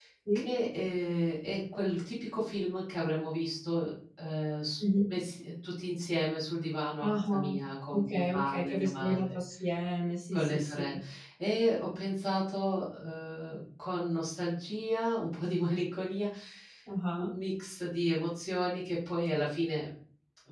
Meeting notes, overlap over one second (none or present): present